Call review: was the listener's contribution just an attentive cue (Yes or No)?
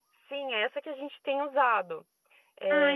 No